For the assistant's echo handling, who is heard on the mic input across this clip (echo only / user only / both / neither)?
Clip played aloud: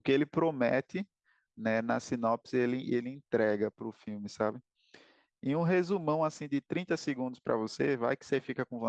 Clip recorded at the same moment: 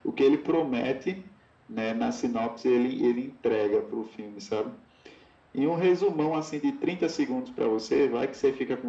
echo only